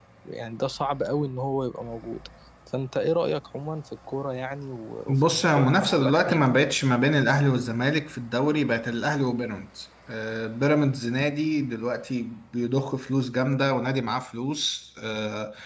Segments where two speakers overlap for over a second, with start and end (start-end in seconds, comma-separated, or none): 5.1-6.5